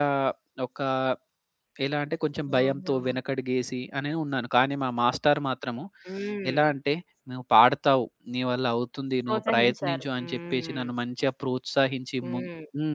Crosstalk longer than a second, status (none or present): present